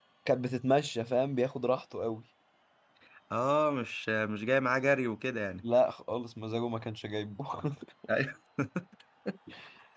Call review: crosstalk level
none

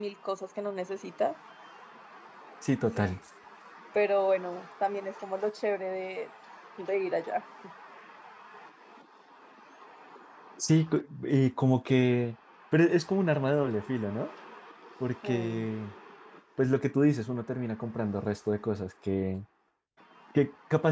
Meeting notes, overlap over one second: none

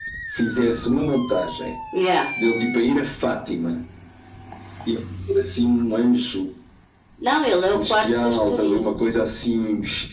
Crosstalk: present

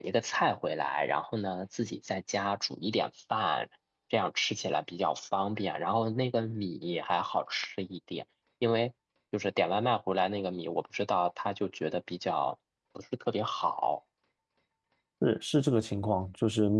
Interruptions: none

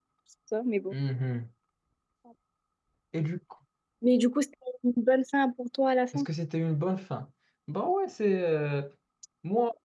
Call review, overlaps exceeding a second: none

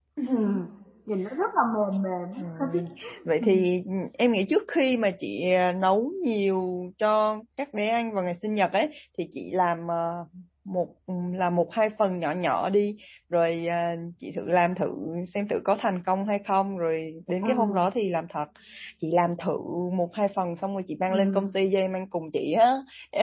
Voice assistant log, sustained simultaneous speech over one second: none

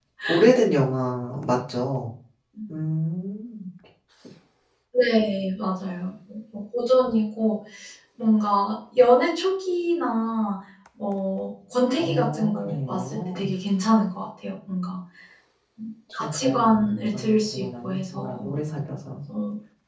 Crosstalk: present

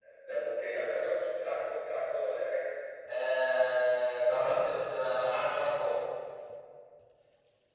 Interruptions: none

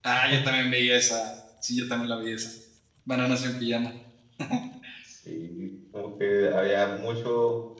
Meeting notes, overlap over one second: none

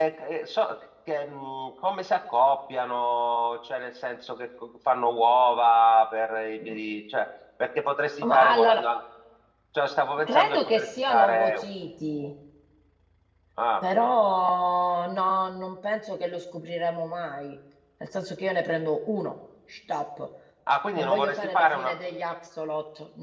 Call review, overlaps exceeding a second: present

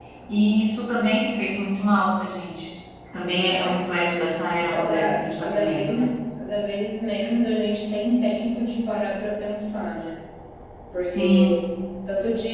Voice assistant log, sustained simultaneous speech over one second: present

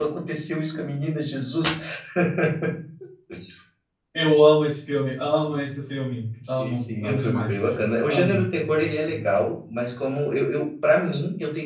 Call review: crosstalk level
present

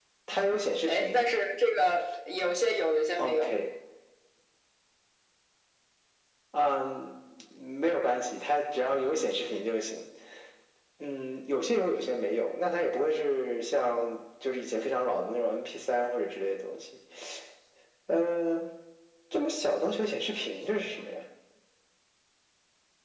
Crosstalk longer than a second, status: none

